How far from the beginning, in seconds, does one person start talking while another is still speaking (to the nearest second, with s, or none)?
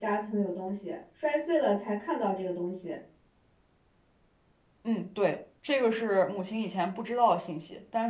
none